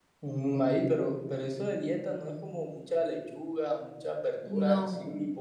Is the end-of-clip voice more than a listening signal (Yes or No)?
No